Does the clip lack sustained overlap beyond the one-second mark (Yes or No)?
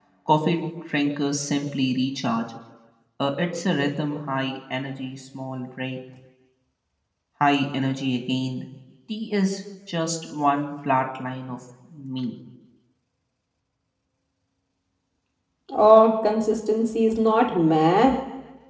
Yes